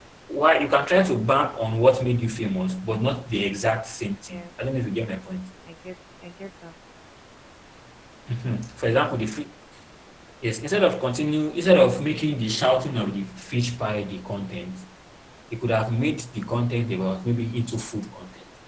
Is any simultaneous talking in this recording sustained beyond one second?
No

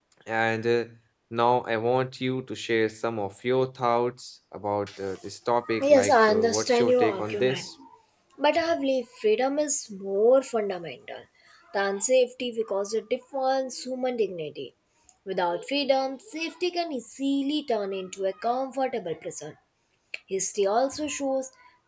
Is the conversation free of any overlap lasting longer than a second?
No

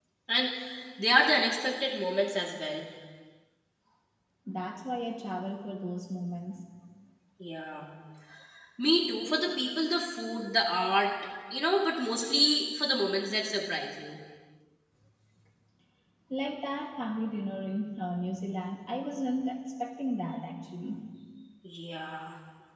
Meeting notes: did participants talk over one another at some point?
No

